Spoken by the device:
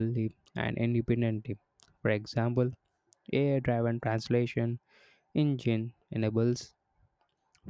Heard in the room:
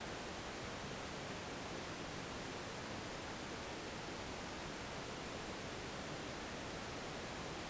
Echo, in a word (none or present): none